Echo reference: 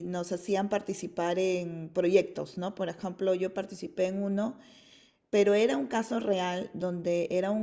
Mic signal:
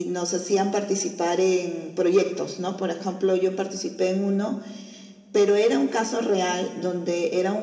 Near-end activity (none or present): none